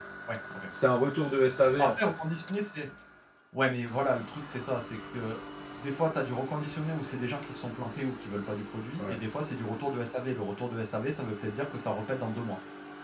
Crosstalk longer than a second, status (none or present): none